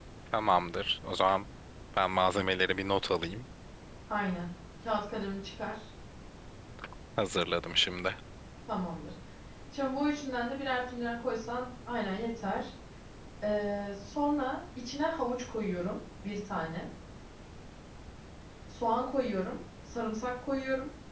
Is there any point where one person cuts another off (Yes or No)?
No